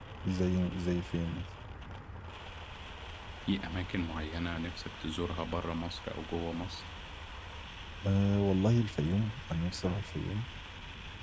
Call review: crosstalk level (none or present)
none